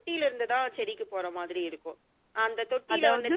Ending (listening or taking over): listening